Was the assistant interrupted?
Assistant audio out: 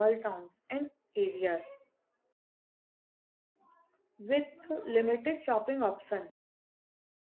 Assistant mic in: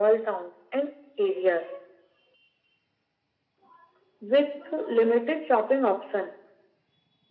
No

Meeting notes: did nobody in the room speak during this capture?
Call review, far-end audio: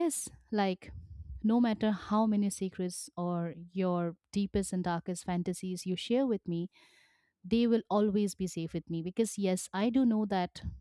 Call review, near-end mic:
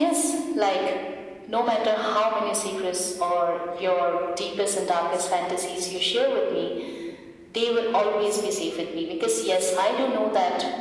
Yes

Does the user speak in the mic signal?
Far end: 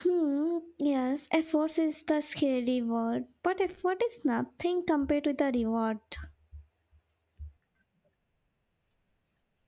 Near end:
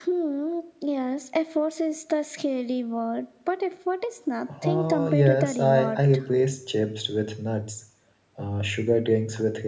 Yes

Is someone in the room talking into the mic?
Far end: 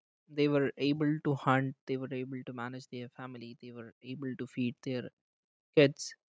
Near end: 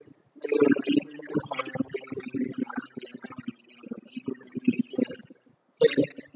No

